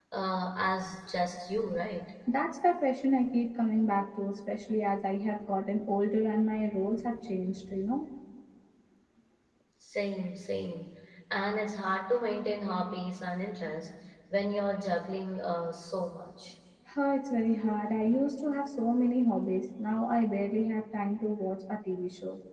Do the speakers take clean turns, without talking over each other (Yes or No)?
Yes